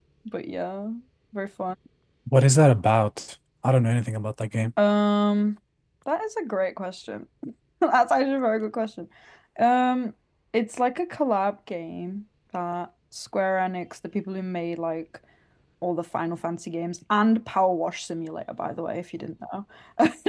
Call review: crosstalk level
none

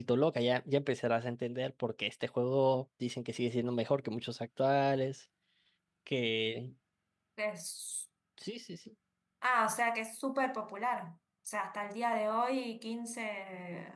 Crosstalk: none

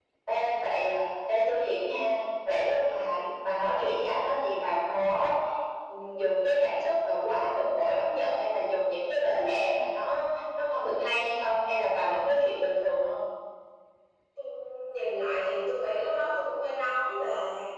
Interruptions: none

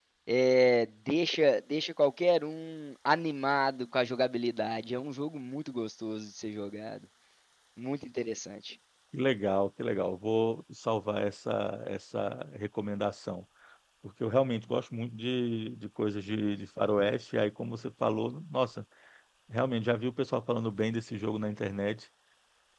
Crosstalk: none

